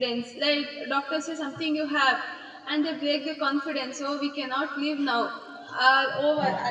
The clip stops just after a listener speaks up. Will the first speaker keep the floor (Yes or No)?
Yes